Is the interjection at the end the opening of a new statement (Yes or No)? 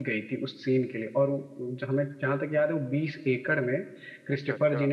No